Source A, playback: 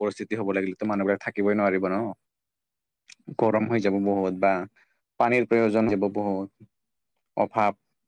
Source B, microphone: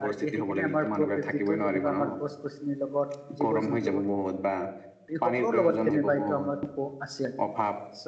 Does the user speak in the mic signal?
Yes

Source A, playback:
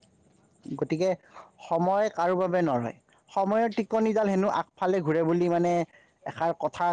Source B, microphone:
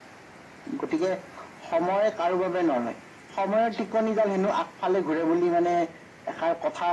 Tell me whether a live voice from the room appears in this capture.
No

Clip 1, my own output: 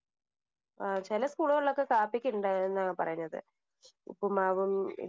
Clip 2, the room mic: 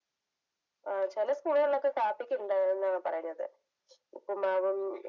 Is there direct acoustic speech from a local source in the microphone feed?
No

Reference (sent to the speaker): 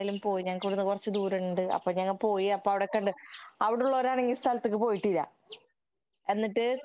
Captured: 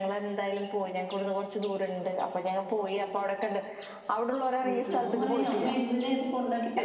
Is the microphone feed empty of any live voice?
No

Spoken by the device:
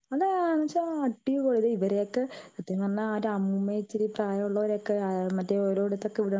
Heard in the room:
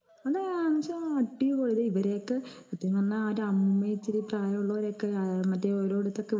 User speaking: No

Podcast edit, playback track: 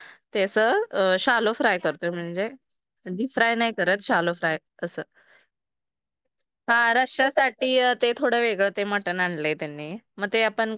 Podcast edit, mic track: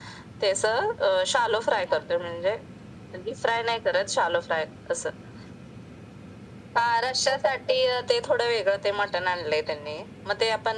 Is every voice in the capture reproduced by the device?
Yes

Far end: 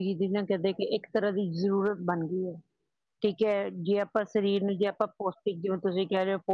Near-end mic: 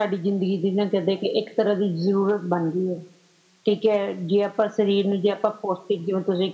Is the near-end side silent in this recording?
Yes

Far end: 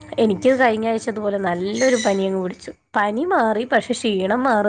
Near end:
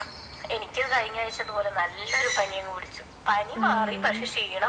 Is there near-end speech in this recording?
Yes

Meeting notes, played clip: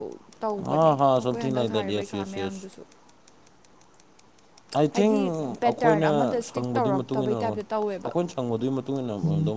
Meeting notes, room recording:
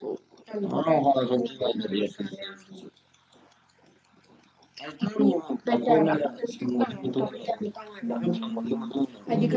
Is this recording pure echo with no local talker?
No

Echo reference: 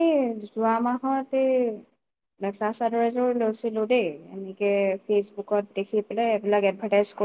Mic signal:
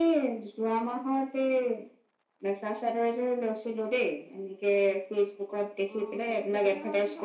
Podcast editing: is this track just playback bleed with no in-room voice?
No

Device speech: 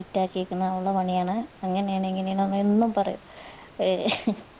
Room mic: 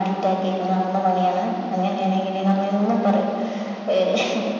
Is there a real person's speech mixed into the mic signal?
No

